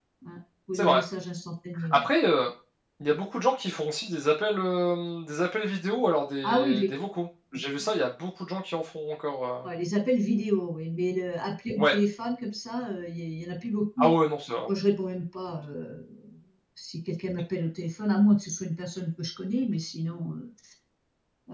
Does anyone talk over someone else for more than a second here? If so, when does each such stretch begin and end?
none

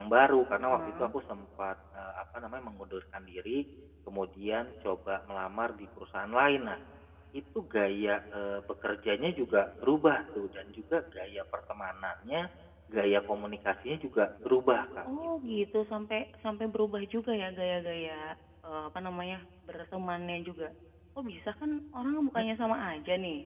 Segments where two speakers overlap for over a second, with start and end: none

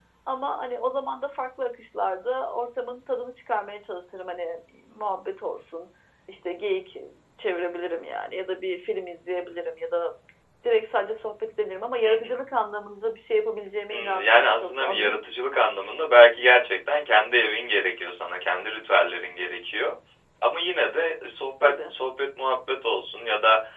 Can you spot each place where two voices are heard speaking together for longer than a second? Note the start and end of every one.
13.9-15.2

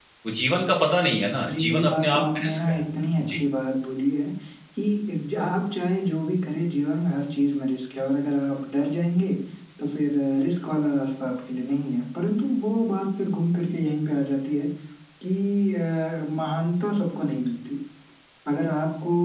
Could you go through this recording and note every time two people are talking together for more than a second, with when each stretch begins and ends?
1.5-2.8

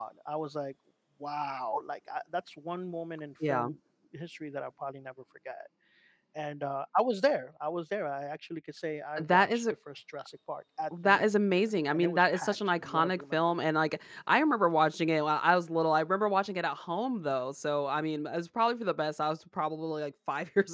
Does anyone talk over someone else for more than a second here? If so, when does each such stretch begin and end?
11.0-13.4

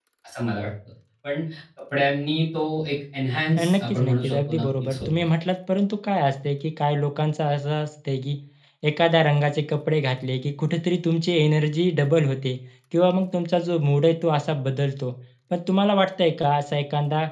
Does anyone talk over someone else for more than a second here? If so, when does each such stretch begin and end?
3.6-5.1

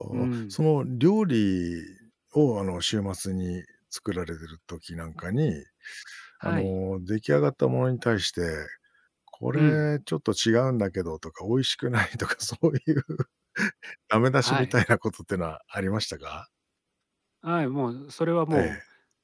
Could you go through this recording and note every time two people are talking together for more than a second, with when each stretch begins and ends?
none

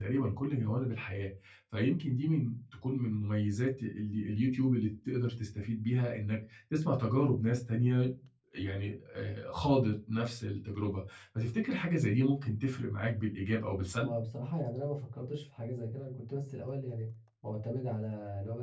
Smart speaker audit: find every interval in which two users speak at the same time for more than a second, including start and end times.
none

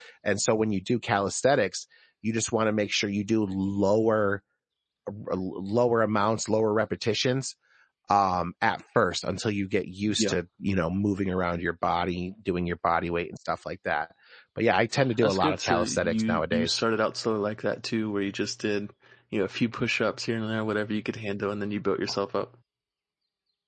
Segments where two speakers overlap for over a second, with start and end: 15.2-16.8

